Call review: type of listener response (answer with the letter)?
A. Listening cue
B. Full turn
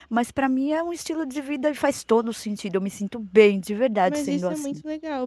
B